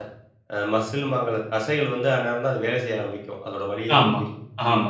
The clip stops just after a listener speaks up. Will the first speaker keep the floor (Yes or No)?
No